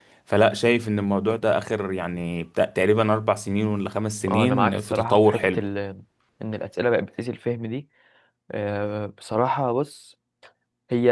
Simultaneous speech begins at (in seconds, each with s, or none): 4.3 s